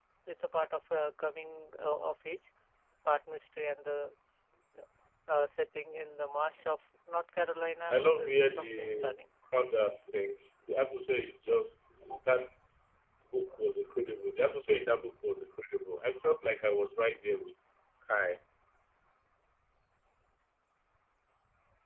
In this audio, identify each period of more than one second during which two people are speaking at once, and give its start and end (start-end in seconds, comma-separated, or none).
7.9-9.2